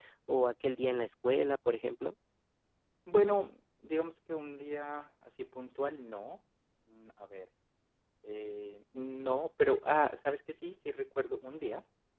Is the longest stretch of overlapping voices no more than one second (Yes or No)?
Yes